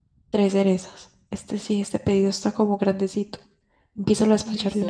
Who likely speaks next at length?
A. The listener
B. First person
A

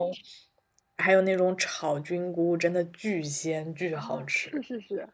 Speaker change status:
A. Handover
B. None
A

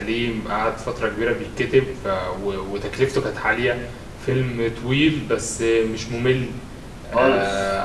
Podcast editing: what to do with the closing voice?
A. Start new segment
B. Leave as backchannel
B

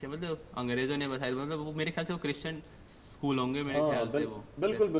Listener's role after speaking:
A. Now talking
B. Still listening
A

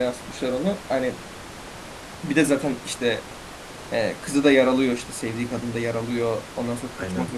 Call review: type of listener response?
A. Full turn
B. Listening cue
B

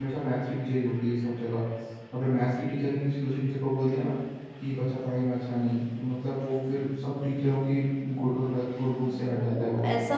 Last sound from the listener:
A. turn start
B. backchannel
A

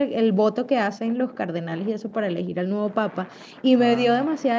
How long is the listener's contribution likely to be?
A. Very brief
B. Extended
A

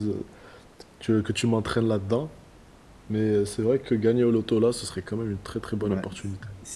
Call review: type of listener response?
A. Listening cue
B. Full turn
B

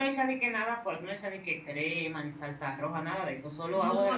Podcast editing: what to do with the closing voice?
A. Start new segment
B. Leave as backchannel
A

